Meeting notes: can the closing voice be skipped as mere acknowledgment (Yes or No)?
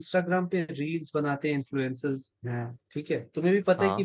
Yes